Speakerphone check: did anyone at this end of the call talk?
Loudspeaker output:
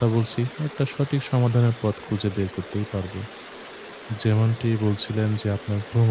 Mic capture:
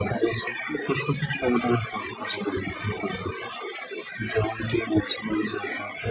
No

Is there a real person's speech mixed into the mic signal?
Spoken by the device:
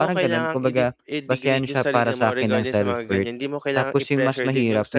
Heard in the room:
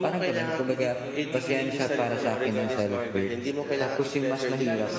Yes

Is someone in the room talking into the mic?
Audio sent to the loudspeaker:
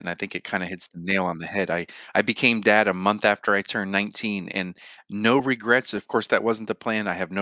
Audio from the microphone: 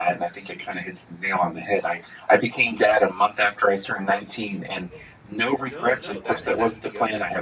Yes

